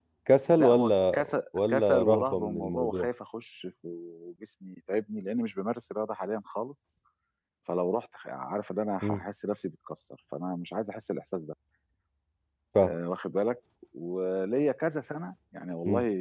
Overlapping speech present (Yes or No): Yes